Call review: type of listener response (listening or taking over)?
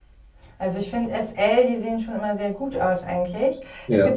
listening